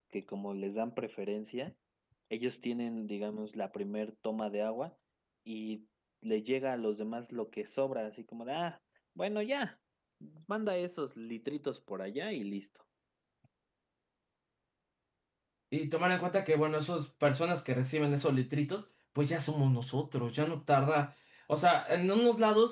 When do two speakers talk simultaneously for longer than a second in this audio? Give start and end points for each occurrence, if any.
none

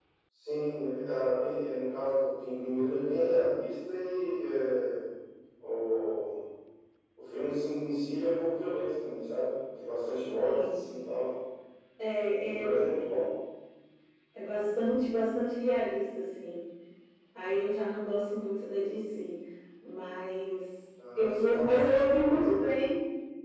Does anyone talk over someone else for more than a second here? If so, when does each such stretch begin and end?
21.2-22.4

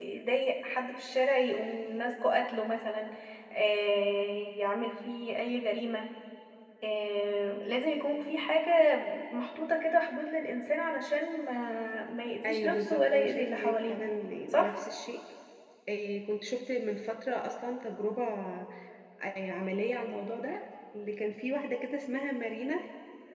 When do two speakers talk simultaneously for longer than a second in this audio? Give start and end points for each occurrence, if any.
12.4-14.0

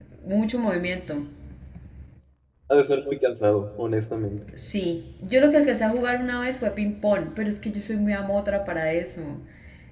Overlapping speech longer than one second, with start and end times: none

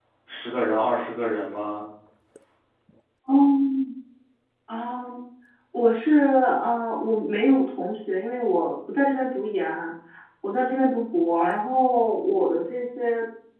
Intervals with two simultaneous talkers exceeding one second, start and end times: none

